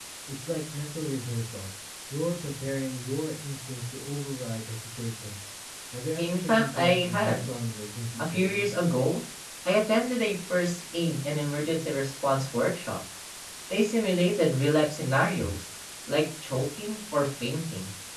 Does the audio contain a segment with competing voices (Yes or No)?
Yes